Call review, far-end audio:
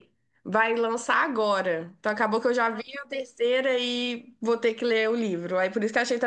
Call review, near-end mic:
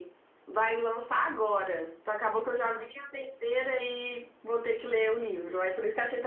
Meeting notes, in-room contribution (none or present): none